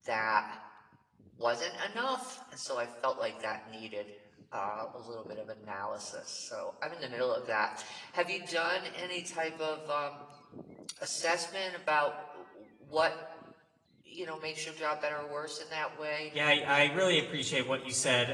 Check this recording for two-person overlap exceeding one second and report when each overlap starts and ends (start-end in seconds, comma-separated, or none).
none